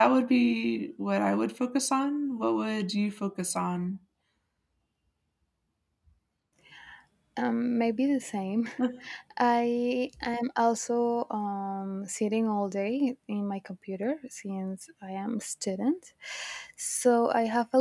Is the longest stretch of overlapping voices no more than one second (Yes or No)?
Yes